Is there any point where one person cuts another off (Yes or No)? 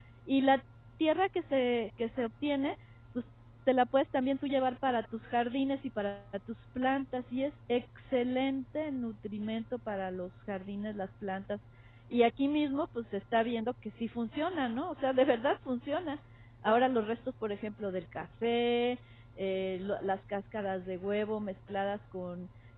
No